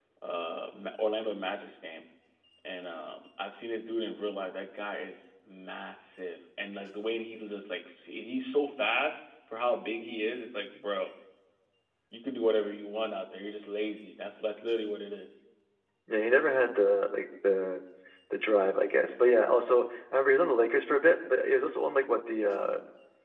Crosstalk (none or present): none